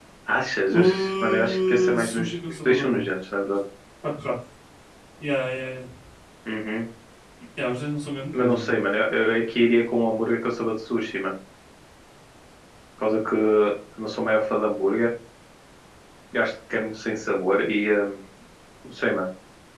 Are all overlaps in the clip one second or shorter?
No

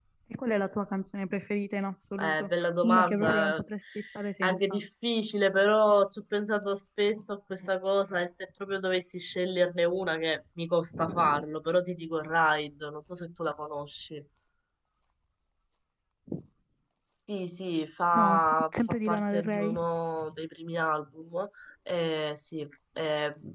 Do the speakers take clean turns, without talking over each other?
No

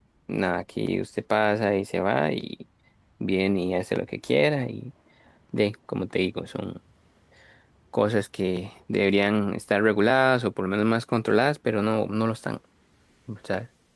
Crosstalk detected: No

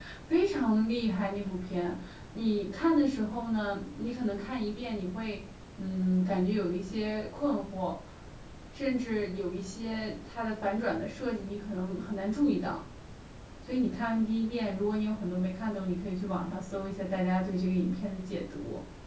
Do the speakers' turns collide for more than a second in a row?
No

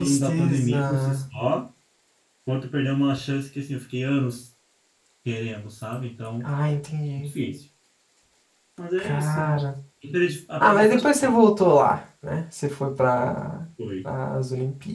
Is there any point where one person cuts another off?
Yes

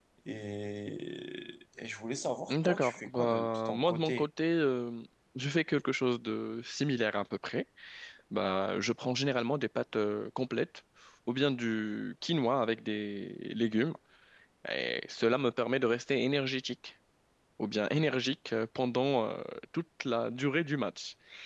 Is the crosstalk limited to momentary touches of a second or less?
No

